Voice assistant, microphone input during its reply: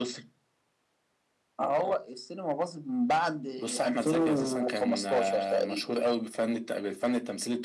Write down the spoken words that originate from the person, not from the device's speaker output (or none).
none